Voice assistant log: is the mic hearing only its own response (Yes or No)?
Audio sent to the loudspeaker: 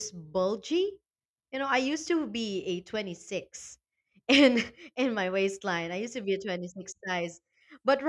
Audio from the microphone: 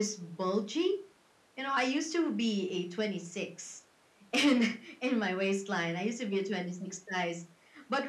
Yes